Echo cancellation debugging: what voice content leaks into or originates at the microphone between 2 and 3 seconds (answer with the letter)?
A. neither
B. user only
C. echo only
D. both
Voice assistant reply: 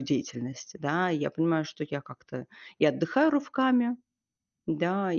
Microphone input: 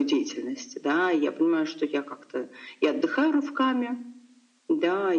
C